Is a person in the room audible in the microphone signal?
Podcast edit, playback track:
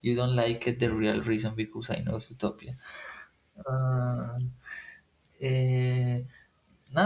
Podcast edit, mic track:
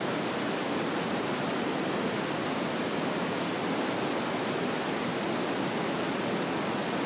No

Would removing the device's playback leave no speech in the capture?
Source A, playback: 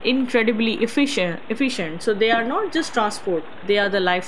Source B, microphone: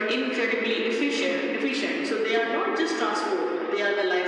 Yes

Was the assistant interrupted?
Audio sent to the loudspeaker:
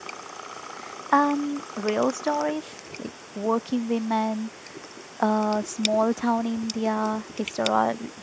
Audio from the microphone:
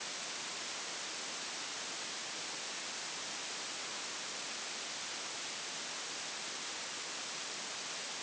No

